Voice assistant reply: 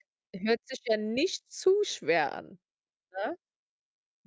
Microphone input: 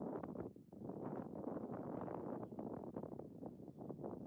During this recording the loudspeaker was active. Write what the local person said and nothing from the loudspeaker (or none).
none